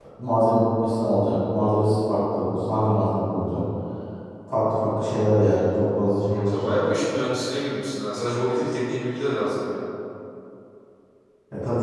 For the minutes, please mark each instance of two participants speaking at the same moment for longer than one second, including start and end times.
none

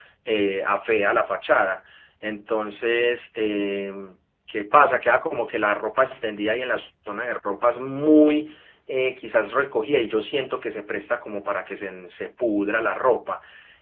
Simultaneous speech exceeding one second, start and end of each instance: none

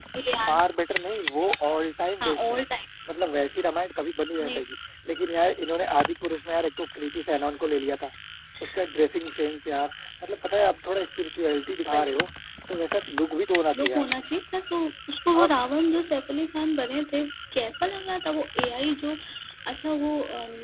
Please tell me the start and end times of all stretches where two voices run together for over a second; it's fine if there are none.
none

